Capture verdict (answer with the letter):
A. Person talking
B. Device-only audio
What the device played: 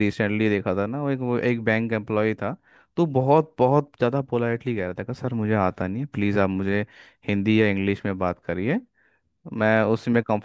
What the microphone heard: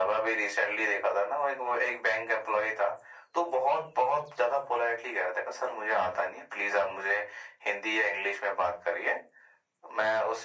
B